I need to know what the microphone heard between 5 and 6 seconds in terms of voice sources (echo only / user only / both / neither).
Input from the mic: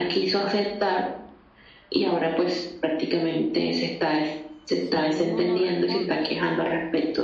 both